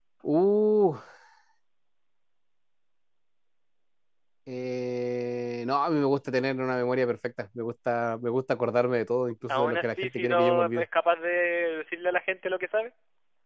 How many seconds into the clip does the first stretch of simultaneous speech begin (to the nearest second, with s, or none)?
9 s